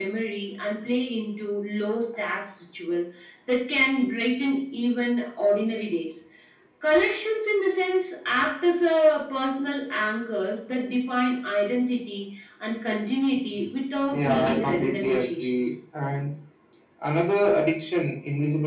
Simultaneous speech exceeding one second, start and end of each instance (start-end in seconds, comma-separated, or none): 14.1-15.5